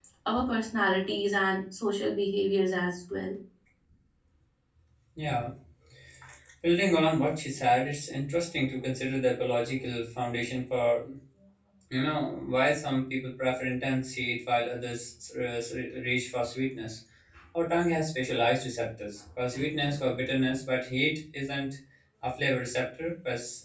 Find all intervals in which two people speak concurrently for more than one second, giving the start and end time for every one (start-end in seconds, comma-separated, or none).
none